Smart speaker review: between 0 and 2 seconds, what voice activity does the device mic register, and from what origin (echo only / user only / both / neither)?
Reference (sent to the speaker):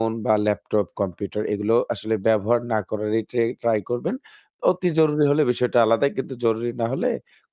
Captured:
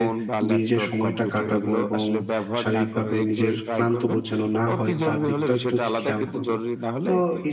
both